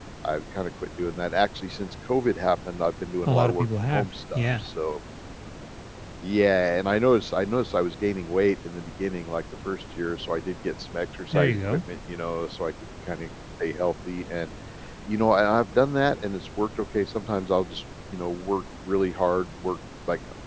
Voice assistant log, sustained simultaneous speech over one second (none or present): present